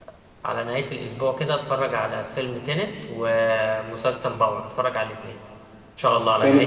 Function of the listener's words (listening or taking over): taking over